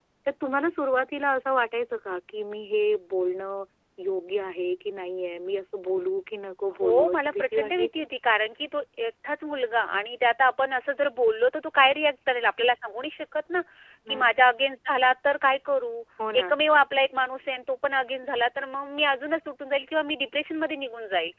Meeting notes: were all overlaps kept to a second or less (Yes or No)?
No